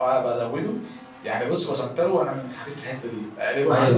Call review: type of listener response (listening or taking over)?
taking over